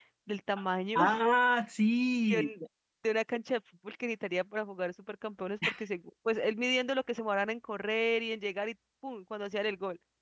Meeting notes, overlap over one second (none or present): none